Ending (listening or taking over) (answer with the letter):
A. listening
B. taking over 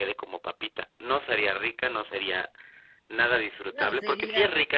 A